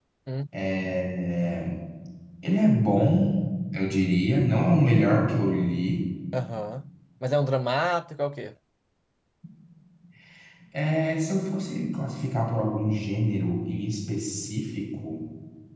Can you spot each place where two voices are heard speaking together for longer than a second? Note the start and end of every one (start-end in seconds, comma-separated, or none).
none